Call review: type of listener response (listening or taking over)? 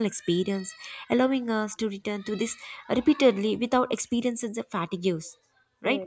taking over